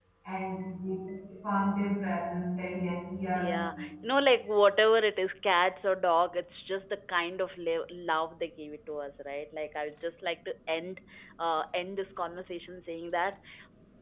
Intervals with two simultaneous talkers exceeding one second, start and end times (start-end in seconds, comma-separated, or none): none